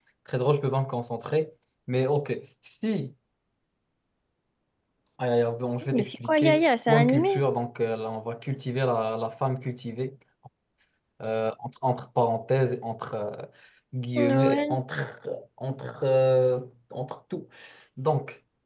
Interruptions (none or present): present